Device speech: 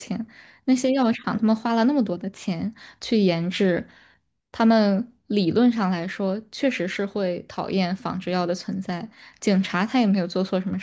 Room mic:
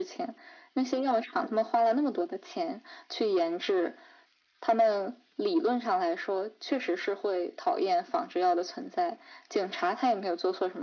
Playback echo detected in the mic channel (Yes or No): Yes